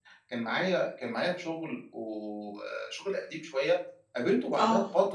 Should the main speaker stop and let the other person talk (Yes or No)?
No